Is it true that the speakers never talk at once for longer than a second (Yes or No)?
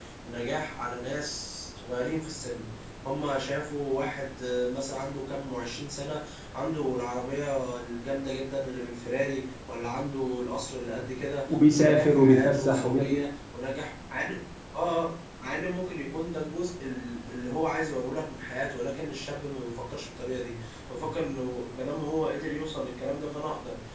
No